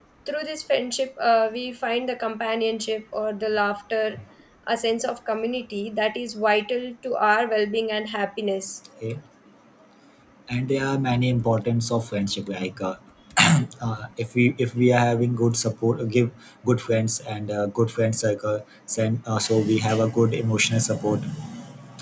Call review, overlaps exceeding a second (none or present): none